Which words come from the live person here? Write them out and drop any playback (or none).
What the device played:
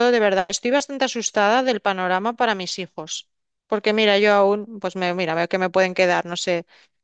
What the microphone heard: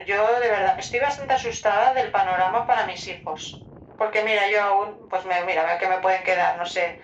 none